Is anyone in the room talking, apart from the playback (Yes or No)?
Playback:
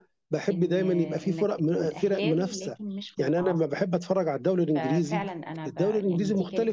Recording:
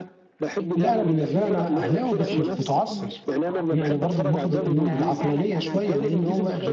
Yes